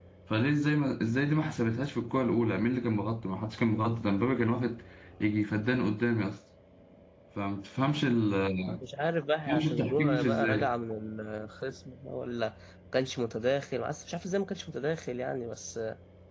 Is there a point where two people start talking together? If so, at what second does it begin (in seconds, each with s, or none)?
9.5 s